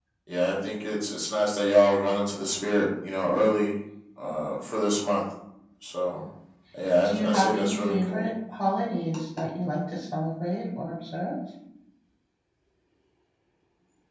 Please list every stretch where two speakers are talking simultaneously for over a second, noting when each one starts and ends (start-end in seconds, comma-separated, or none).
7.0-8.3